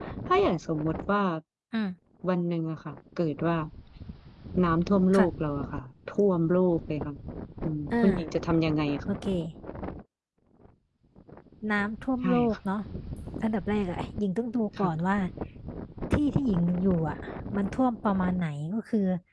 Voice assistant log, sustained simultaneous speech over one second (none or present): none